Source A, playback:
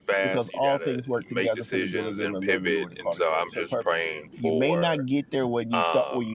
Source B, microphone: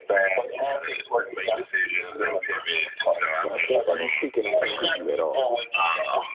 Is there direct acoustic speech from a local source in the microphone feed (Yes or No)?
Yes